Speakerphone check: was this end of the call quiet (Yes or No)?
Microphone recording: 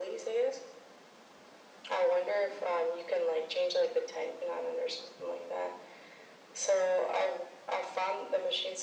Yes